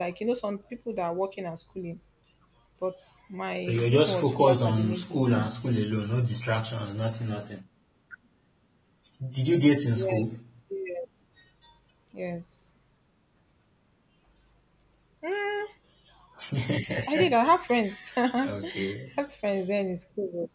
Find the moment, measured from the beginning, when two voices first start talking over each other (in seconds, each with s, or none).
3.7 s